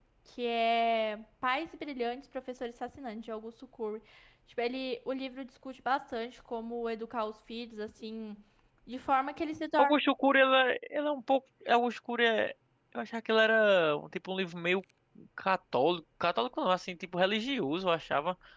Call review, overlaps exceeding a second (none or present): none